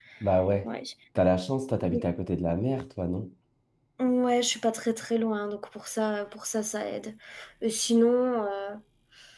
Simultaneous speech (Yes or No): No